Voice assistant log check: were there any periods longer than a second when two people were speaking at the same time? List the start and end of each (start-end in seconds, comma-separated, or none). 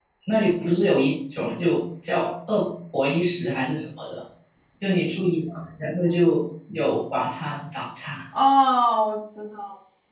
none